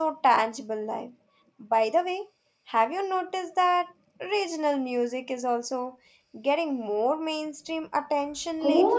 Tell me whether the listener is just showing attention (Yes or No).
No